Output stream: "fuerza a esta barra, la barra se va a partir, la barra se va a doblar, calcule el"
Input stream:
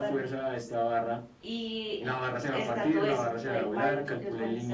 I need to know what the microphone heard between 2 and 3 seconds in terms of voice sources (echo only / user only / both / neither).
both